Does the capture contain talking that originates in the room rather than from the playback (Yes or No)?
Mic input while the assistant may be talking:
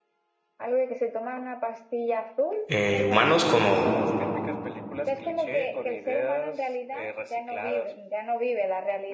Yes